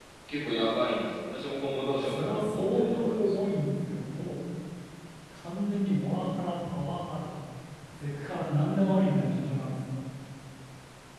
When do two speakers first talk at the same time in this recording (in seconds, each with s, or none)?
1.9 s